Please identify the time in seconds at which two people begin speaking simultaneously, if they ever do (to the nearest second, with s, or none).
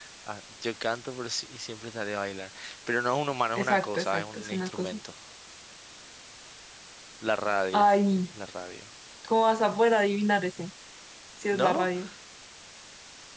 4 s